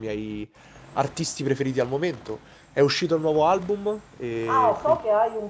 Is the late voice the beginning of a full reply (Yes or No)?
Yes